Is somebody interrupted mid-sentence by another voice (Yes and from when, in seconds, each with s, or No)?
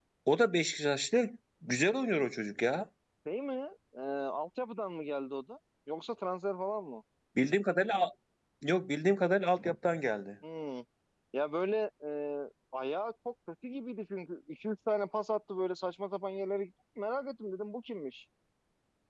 No